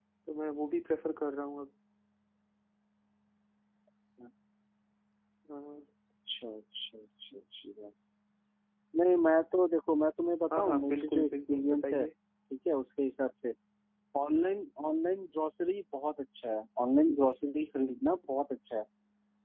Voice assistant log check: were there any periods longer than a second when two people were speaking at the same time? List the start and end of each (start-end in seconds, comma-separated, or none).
10.6-12.0